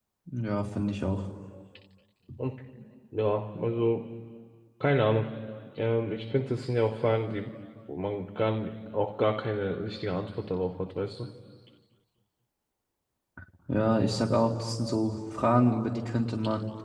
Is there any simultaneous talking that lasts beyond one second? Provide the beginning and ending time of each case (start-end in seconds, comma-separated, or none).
none